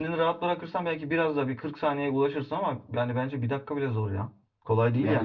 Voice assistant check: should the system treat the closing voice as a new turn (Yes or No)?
Yes